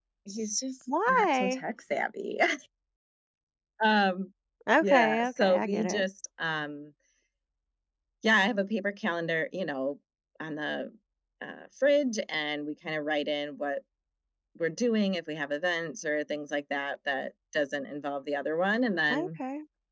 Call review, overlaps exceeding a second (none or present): present